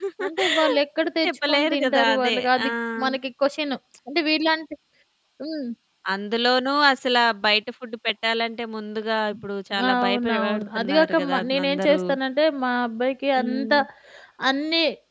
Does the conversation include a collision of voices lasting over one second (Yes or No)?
Yes